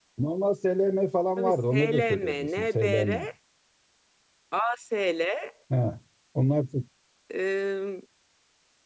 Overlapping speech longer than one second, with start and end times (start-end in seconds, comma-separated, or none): 1.4-3.3